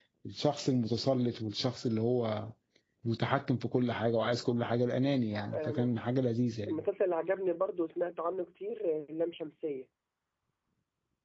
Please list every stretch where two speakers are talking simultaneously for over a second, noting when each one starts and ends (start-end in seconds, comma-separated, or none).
none